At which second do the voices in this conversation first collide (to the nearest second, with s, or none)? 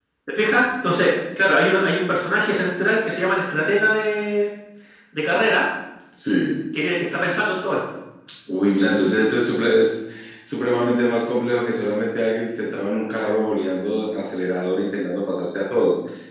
none